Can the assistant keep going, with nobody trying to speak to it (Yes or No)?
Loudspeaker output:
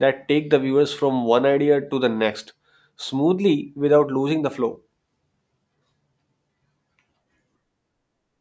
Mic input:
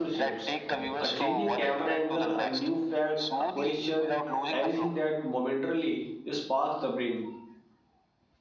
No